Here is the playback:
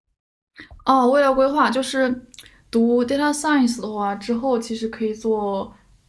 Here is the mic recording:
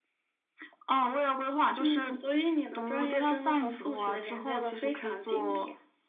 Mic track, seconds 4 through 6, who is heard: both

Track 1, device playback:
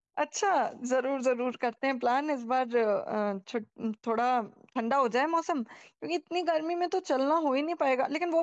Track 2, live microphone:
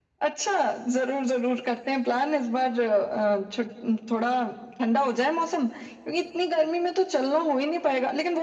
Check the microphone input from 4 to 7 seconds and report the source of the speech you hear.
echo only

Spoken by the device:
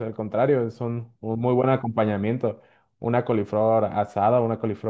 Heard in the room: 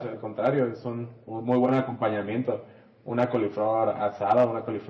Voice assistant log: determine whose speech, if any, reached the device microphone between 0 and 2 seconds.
echo only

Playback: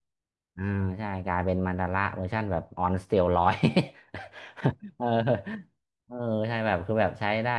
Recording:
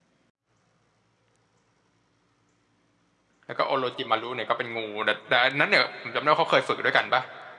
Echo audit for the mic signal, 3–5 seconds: user only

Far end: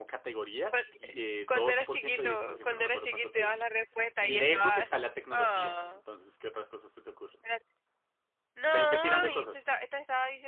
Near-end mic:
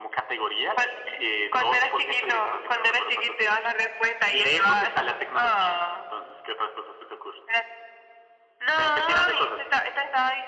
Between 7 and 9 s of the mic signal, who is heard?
echo only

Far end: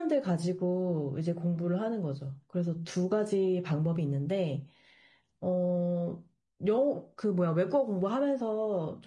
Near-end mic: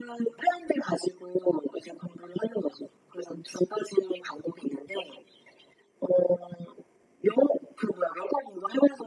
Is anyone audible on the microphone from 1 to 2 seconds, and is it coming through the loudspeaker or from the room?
echo only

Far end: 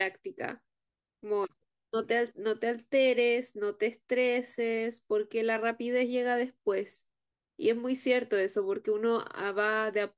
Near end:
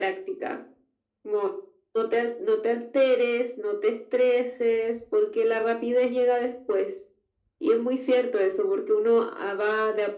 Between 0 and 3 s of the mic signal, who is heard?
echo only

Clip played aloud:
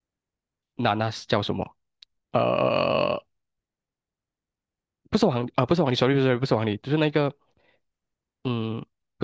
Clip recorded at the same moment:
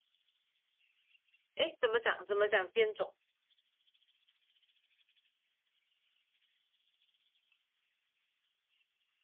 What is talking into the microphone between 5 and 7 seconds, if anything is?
neither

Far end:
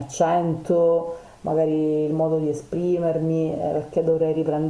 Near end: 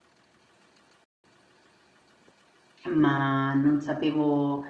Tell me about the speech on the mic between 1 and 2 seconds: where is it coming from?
neither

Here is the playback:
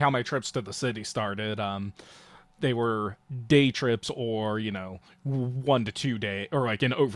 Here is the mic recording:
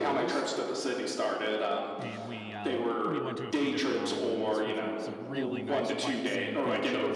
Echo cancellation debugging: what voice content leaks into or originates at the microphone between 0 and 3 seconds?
both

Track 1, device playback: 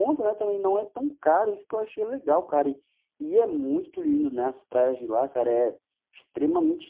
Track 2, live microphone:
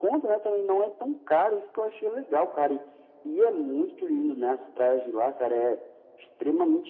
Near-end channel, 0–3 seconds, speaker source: echo only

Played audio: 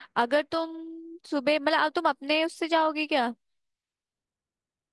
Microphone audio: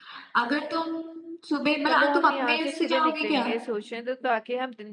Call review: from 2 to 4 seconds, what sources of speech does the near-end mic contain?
both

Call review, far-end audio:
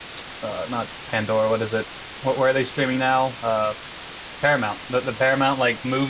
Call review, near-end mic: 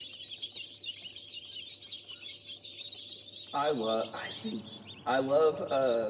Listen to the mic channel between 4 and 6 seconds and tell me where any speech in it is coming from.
user only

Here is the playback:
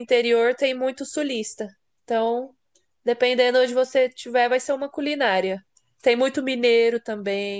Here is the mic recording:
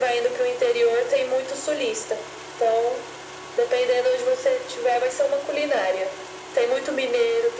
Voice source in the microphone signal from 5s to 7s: echo only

